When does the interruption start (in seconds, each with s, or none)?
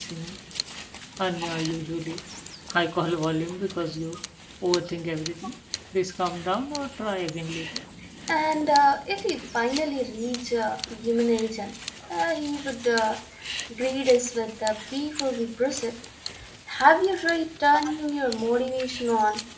none